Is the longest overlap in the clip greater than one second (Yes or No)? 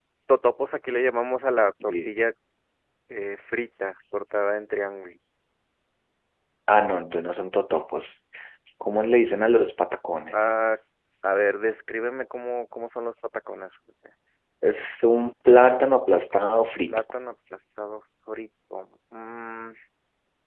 No